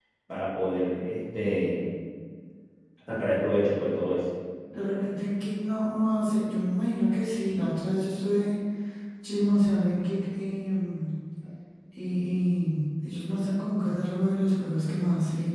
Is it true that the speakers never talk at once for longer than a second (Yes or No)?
Yes